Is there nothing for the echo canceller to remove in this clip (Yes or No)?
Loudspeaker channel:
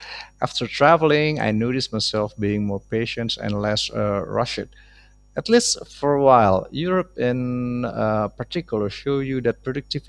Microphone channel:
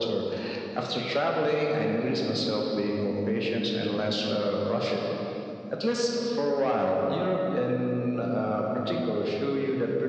No